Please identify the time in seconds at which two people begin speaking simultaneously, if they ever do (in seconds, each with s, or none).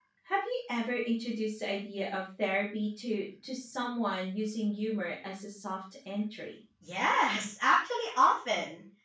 none